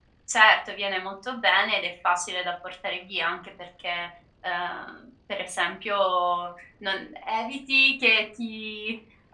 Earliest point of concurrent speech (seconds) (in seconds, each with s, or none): none